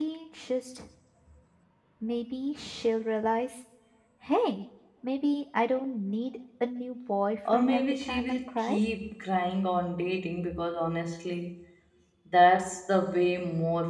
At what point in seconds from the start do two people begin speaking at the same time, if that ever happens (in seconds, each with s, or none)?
7.5 s